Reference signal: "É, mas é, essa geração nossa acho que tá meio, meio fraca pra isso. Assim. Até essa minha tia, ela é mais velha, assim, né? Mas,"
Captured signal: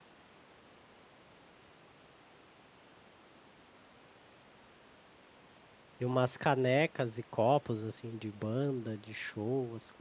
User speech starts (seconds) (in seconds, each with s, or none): 6.0 s